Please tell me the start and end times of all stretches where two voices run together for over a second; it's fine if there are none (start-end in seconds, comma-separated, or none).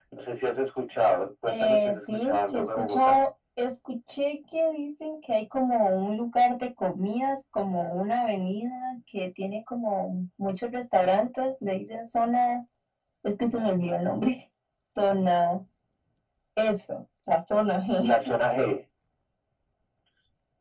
1.5-3.2